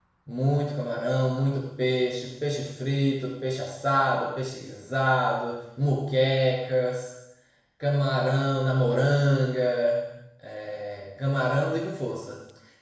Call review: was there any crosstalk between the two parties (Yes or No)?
No